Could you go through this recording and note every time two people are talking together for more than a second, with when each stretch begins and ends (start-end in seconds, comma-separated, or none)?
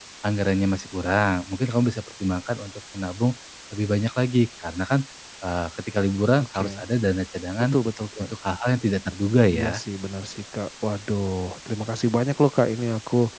none